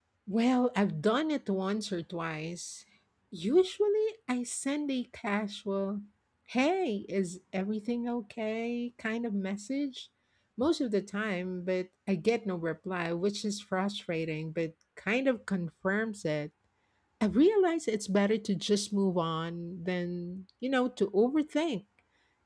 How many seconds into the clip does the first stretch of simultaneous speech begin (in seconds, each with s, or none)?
none